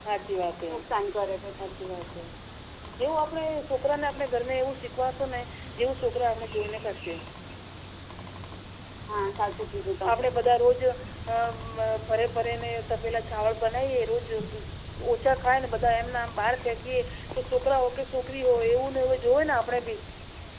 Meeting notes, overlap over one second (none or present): none